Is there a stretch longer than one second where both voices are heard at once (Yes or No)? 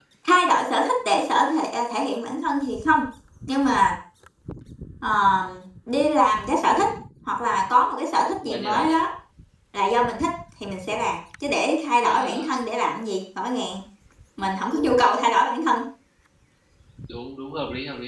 No